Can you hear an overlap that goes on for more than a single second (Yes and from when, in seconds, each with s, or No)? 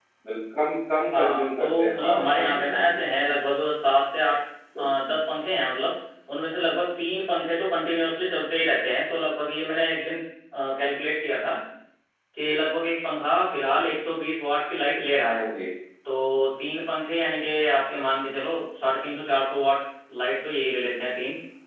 Yes, from 1.2 s